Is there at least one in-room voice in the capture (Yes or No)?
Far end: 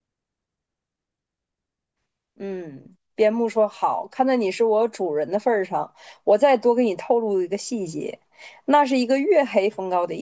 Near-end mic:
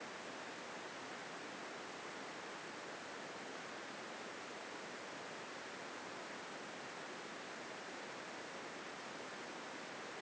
No